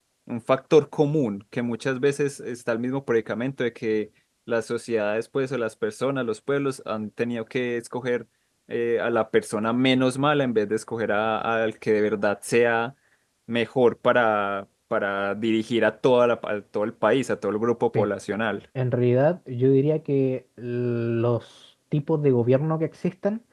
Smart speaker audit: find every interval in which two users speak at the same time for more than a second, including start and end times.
none

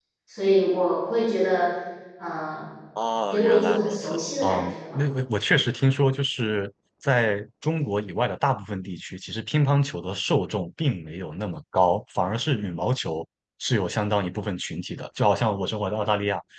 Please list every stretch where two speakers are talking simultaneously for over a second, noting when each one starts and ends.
3.3-5.0

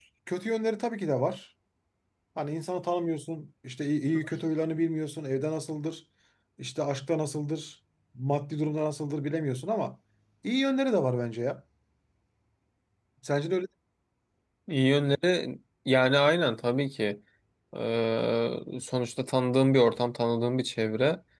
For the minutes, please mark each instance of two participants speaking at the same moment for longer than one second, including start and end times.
none

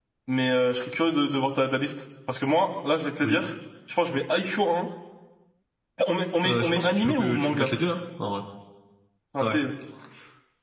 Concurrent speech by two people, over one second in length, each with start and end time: 6.4-7.7

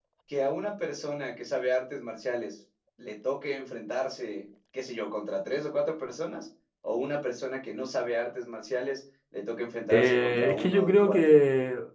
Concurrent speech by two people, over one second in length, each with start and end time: 9.9-11.4

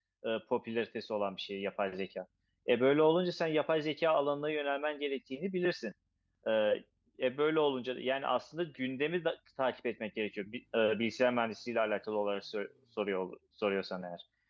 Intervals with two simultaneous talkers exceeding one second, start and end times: none

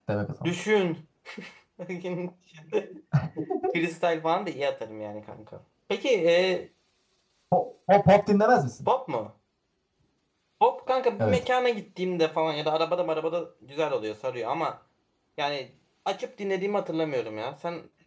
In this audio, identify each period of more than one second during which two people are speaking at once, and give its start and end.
none

